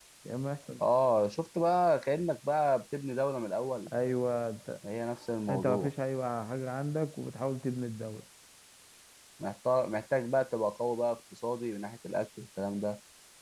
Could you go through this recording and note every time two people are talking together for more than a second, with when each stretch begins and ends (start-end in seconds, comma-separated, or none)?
none